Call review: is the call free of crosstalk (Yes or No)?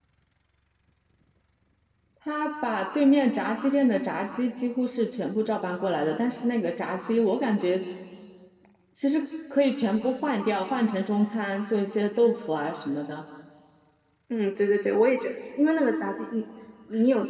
Yes